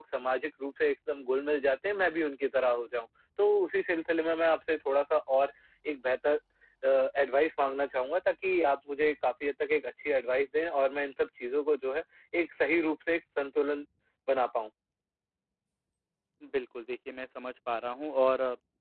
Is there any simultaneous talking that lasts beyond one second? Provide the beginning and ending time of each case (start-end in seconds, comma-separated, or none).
none